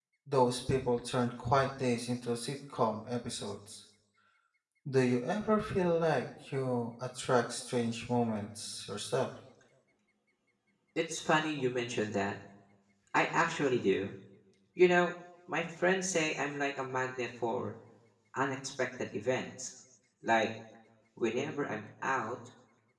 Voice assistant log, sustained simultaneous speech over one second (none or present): none